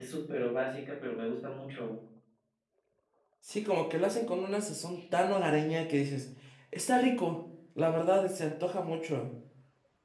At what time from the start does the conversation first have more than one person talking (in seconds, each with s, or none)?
none